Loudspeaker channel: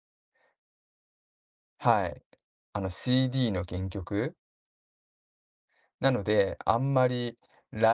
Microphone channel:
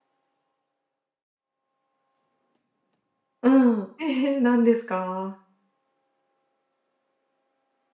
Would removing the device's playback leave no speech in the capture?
No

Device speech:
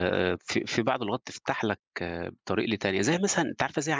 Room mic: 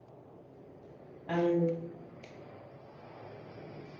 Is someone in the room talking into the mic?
Yes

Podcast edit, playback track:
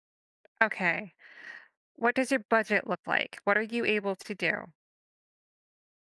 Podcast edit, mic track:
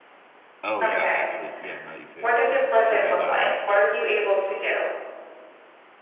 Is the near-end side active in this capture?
Yes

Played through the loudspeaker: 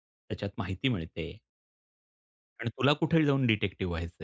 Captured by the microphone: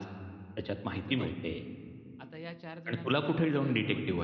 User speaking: Yes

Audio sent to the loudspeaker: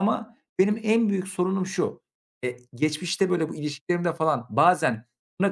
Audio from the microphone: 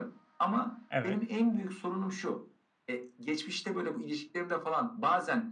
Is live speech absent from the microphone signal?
No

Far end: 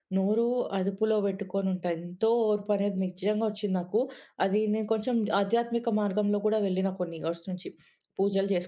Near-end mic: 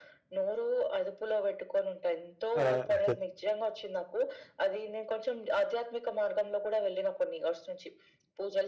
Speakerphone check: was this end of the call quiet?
No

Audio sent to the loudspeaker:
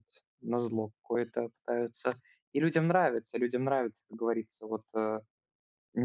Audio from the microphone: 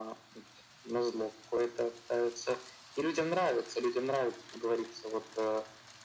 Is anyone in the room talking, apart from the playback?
No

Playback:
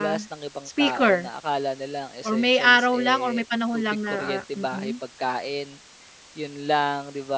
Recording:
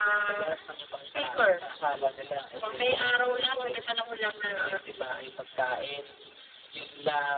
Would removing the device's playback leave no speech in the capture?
Yes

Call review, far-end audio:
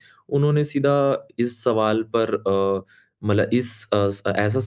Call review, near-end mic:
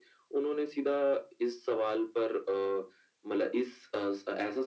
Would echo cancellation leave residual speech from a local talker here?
No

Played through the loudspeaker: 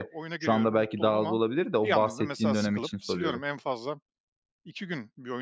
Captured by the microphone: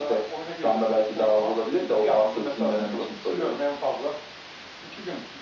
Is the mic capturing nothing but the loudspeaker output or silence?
Yes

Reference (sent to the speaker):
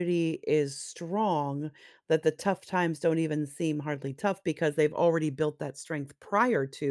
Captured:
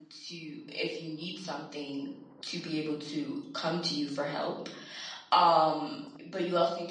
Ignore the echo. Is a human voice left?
Yes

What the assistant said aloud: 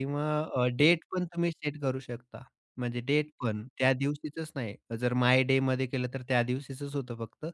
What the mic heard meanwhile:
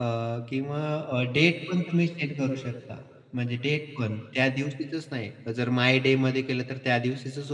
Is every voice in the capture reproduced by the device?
Yes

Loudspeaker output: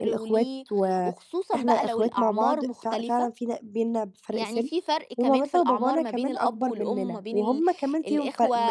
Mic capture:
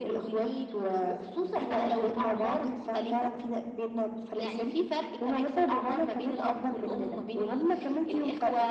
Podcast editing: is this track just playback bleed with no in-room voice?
Yes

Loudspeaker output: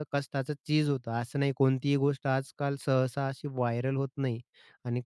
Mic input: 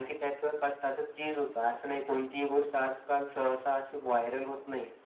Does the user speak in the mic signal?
No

